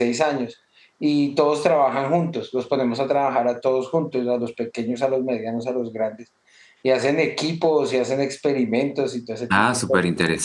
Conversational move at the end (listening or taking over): taking over